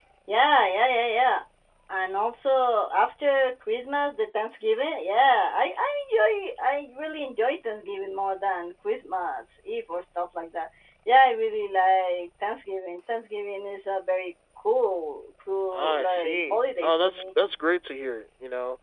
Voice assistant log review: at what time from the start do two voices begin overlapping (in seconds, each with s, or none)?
15.7 s